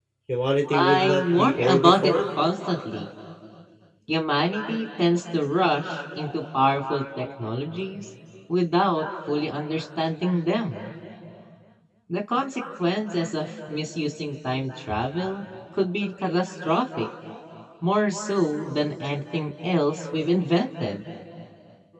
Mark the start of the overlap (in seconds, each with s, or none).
0.7 s